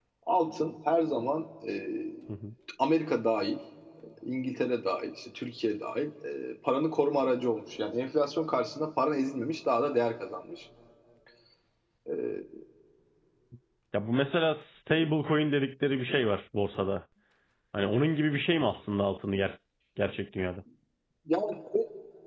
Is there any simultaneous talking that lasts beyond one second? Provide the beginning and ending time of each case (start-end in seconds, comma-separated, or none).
none